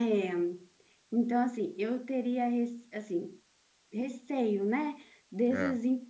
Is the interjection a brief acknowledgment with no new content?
Yes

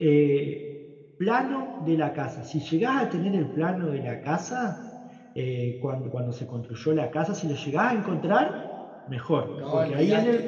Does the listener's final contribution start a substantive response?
Yes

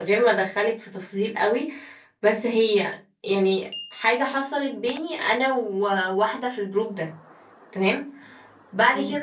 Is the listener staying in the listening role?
Yes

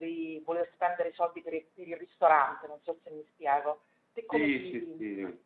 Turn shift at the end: Yes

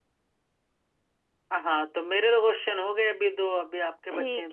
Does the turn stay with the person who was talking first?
No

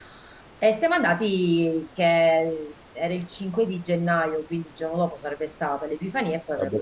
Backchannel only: Yes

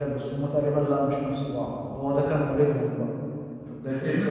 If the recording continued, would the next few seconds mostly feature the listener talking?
Yes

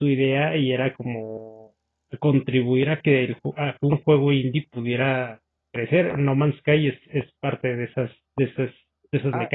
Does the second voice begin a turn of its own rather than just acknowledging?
Yes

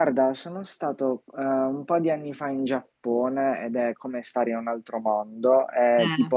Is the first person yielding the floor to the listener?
No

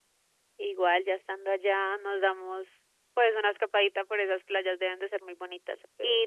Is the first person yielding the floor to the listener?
No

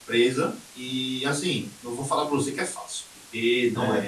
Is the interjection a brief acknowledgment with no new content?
Yes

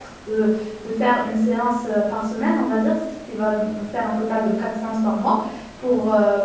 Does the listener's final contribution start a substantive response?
No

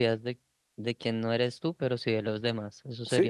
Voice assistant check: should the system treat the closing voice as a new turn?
Yes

